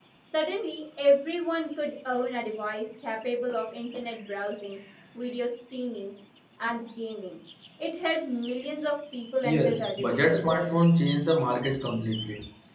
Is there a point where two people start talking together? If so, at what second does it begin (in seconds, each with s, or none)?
9.4 s